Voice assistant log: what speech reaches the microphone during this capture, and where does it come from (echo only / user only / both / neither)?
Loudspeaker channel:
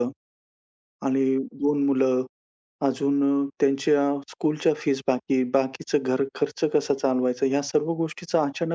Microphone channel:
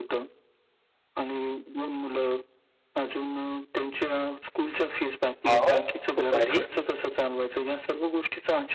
both